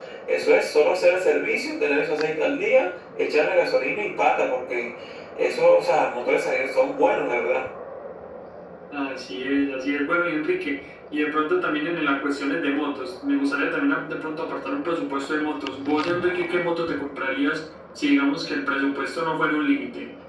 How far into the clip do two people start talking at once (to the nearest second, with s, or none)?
none